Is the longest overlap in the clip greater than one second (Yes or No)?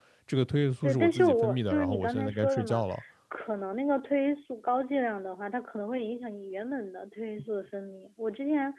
Yes